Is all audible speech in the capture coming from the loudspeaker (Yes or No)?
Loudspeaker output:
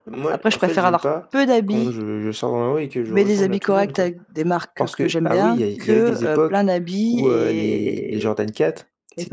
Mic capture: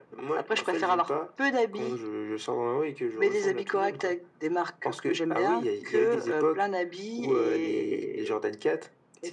Yes